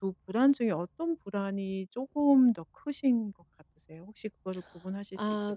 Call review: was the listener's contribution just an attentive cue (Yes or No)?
No